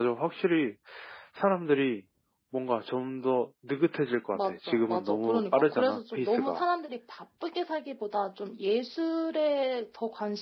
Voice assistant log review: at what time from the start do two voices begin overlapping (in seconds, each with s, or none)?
4.3 s